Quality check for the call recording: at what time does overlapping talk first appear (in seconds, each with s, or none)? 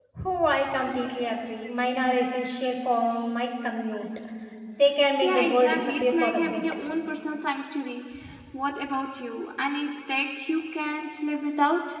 5.2 s